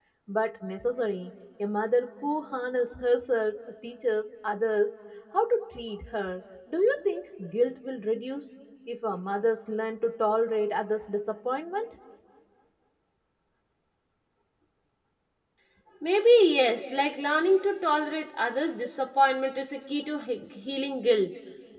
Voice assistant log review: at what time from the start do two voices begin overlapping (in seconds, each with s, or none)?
none